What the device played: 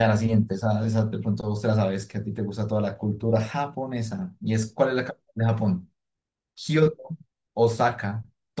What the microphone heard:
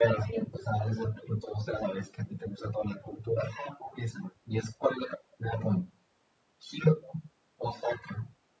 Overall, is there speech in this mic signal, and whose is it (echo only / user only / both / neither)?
echo only